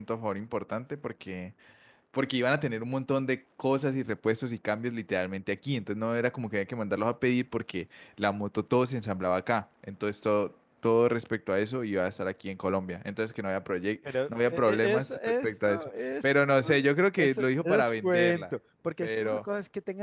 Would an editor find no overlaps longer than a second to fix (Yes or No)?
No